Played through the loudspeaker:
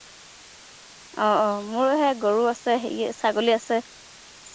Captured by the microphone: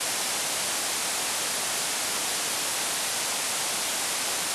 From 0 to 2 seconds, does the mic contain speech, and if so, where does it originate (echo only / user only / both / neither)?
neither